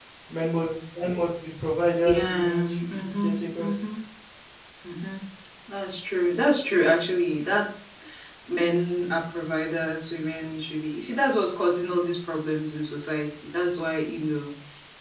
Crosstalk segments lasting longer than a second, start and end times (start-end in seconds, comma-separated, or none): 2.2-3.8